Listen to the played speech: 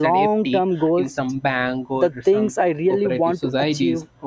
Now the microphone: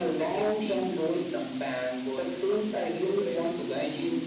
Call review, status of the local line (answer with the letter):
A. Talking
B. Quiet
B